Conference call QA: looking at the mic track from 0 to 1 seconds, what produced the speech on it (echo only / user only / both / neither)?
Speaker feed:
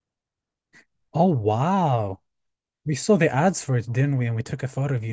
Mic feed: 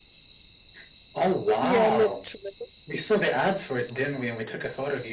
neither